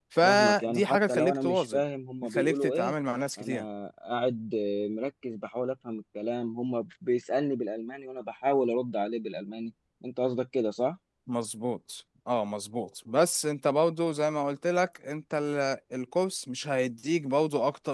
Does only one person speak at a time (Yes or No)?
No